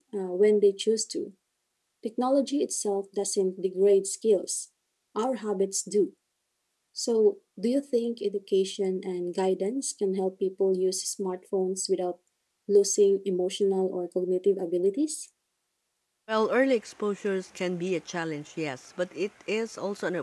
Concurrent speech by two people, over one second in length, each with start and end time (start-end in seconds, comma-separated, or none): none